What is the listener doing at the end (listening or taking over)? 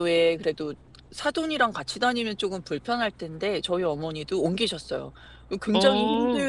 listening